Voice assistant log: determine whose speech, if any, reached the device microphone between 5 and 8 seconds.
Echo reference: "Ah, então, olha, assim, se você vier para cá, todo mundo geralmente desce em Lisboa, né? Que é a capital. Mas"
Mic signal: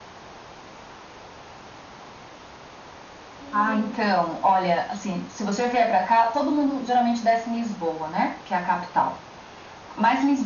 echo only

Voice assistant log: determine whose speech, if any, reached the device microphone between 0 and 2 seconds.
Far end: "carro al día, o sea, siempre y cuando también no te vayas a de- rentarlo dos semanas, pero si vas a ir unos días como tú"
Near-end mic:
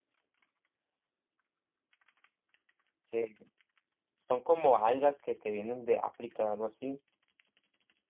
neither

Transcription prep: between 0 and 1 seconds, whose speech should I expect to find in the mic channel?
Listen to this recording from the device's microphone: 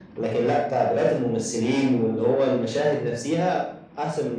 echo only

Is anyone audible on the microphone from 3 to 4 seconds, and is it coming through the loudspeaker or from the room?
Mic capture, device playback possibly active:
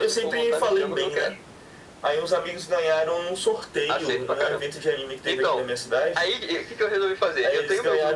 echo only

